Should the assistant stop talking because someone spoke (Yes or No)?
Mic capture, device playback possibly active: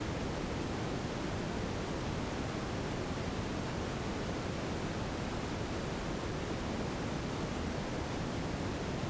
No